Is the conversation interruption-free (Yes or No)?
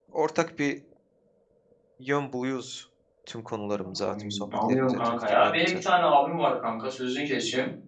No